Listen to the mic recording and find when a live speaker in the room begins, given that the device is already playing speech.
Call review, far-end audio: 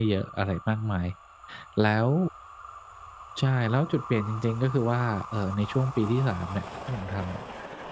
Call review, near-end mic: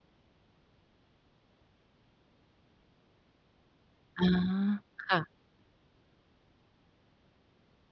4.2 s

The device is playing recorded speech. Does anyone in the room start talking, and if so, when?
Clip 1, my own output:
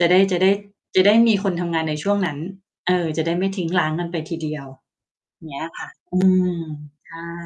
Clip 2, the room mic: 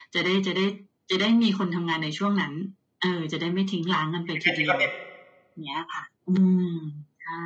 4.2 s

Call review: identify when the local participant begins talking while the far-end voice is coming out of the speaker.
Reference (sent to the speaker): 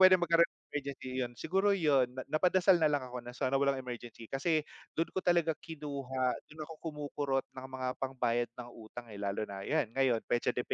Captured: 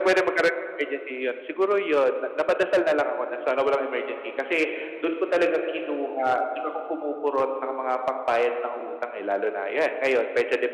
none

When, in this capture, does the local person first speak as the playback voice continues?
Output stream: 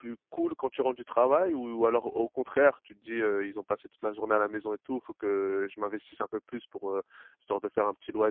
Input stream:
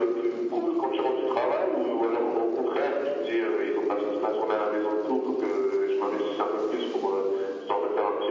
none

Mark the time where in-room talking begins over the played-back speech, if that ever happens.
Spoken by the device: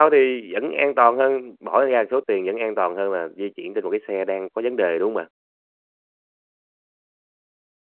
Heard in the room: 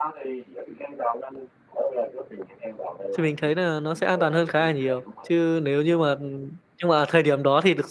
3.2 s

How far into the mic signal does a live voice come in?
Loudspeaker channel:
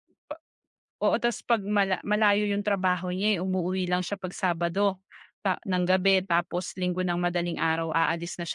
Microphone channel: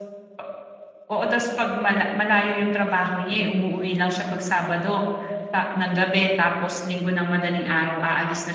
none

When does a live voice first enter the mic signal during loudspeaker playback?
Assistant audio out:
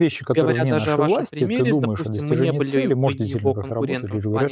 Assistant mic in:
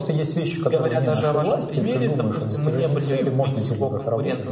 1.8 s

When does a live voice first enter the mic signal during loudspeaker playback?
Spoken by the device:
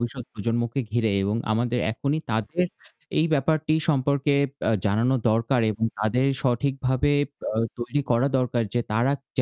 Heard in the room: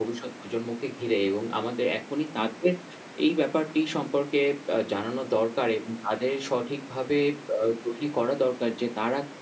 none

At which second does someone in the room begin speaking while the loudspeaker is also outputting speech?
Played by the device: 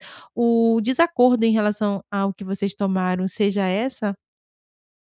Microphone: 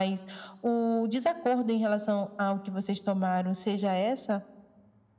none

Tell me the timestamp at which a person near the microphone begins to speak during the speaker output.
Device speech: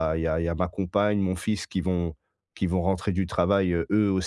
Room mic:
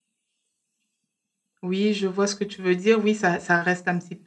1.6 s

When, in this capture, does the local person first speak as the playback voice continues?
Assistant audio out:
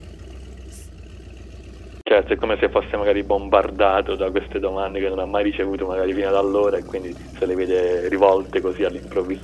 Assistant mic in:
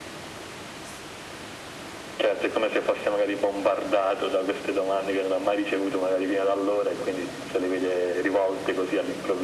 none

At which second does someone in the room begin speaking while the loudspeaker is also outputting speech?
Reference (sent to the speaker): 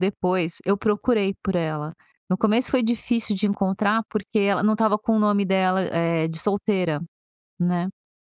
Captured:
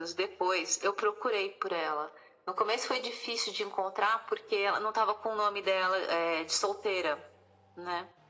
none

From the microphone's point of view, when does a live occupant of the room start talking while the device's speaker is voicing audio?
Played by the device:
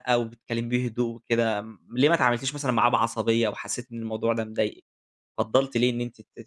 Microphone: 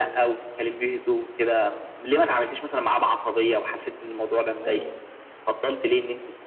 4.6 s

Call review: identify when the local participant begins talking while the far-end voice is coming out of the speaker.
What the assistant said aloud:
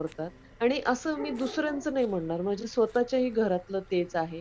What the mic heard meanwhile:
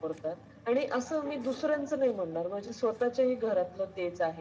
none

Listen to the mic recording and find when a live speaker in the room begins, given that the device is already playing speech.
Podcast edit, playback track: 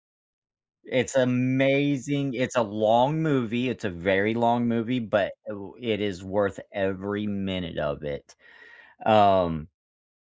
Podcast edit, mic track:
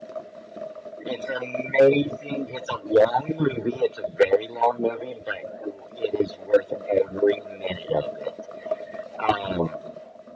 none

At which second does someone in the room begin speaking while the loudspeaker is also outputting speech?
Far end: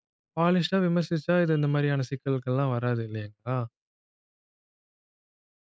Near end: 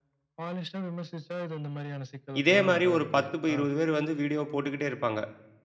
2.4 s

